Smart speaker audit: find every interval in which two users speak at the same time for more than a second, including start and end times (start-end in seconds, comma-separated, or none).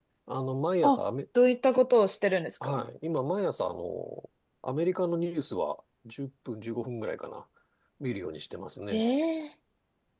none